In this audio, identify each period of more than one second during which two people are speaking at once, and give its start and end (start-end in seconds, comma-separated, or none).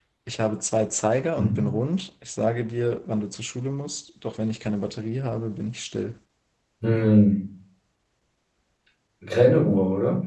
none